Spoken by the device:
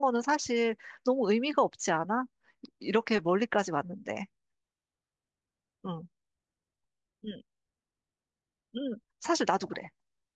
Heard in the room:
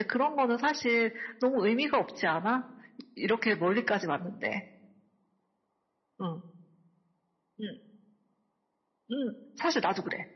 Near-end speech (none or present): none